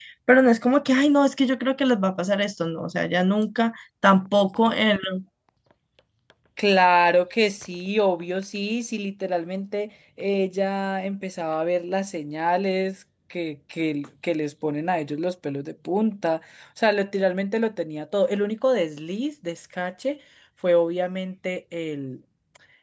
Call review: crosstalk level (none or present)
none